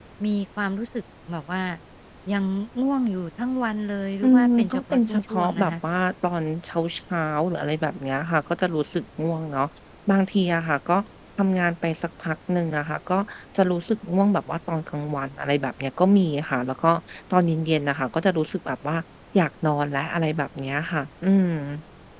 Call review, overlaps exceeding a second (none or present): present